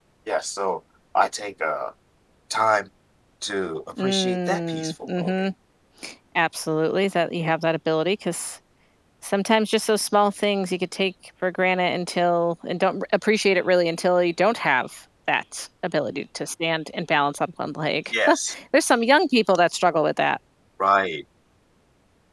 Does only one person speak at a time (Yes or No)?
No